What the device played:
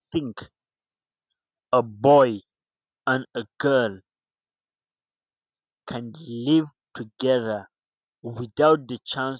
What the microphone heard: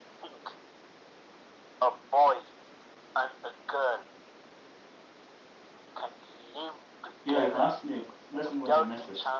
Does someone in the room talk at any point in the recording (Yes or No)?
Yes